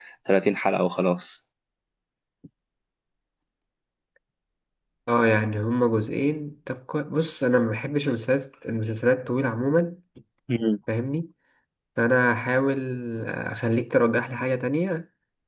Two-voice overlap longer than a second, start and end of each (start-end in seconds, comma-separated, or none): none